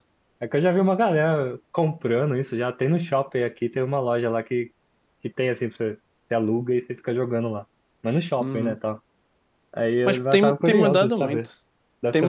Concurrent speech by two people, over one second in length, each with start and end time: 10.1-11.4

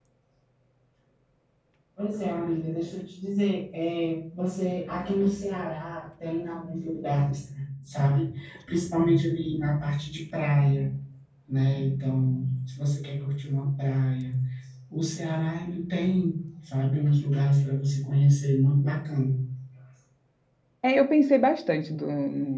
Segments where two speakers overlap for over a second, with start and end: none

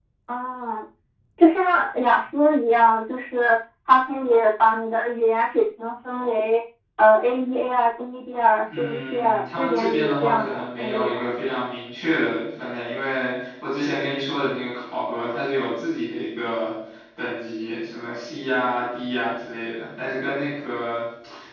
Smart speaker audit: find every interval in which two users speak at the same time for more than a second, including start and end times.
8.7-11.2

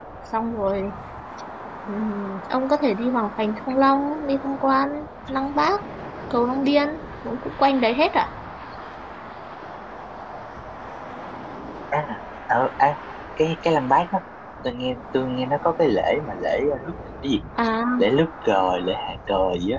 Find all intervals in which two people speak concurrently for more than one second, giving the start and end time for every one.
none

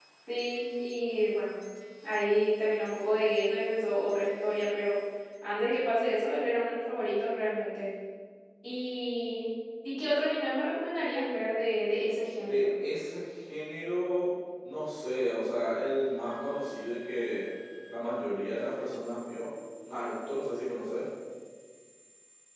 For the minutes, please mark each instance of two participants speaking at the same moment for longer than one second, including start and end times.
none

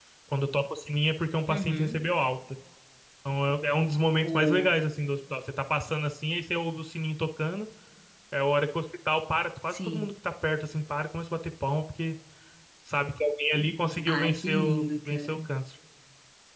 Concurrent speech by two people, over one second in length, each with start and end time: 14.1-15.4

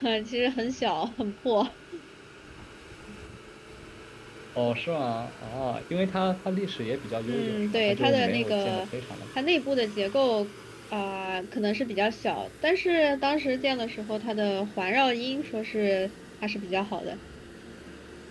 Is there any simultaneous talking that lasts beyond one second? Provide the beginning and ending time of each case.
7.3-8.8

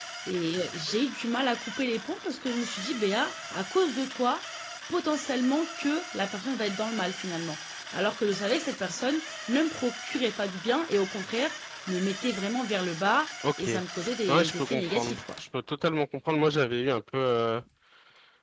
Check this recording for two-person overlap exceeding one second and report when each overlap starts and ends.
13.6-15.2

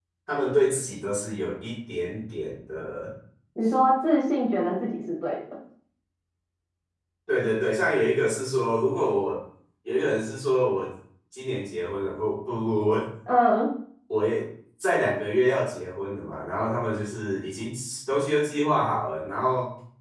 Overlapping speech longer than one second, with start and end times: none

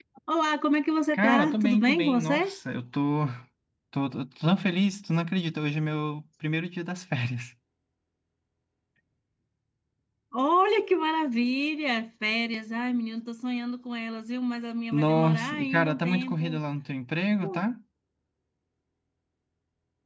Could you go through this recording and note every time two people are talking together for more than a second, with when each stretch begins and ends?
1.1-2.6, 14.9-16.6

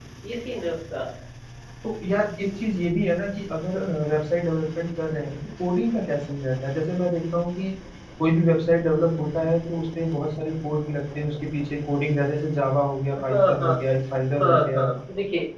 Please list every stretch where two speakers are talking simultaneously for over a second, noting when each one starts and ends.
none

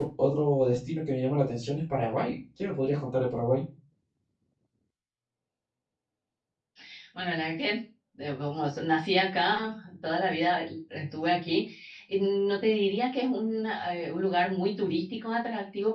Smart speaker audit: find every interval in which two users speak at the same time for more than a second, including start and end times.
none

